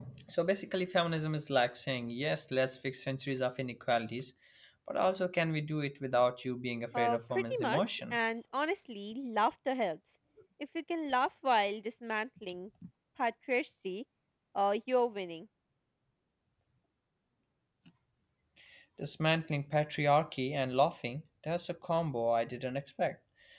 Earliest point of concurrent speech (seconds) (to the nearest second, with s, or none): 7 s